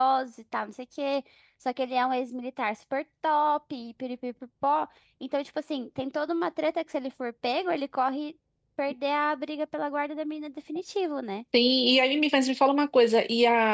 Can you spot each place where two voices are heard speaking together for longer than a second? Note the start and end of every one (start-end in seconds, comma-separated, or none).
none